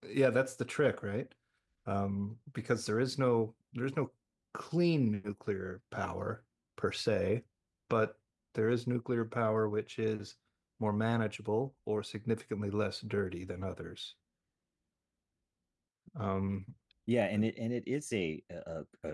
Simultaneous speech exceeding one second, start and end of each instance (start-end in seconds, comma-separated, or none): none